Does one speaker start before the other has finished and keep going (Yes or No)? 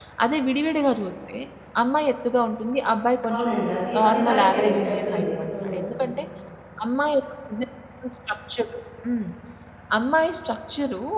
Yes